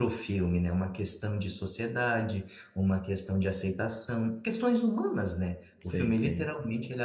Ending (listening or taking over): listening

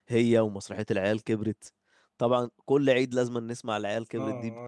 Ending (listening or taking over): taking over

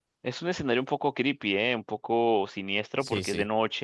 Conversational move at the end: listening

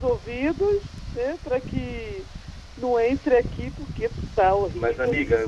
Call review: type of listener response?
taking over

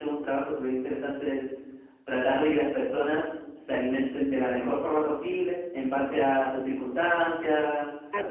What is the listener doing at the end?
listening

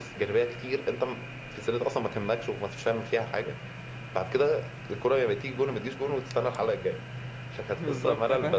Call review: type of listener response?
taking over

